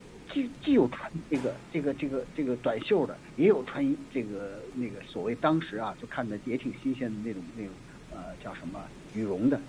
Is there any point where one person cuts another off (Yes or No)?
No